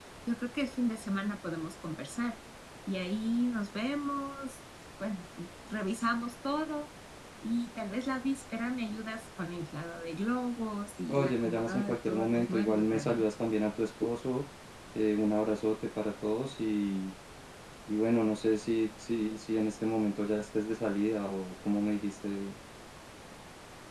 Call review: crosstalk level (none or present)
present